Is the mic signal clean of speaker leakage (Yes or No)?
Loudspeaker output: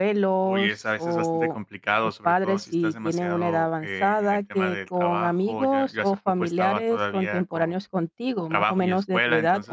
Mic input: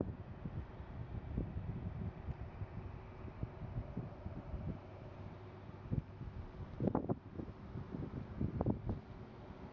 Yes